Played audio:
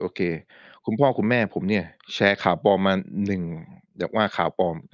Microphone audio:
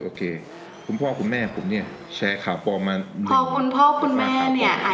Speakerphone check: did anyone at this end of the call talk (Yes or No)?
Yes